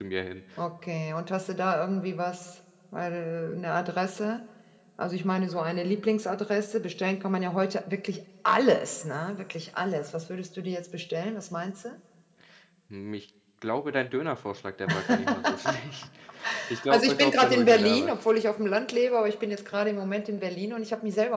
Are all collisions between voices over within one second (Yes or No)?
No